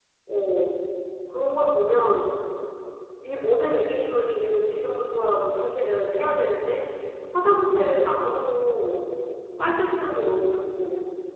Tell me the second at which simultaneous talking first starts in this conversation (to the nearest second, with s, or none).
none